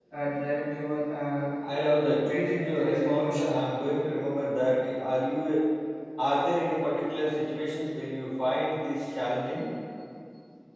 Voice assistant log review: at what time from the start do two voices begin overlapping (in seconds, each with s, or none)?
2.2 s